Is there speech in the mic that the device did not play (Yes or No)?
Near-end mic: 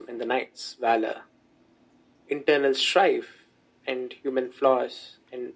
No